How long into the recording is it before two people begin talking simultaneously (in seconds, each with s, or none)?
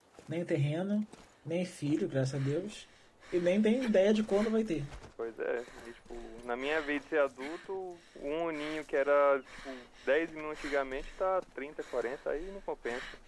none